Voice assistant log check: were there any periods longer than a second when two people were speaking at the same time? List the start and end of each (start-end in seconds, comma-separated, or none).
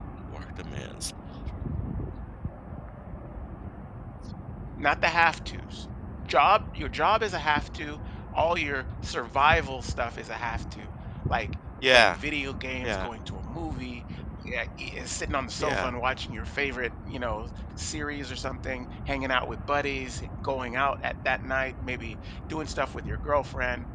none